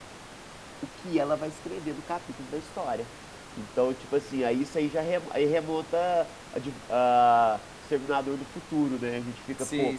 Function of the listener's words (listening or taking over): listening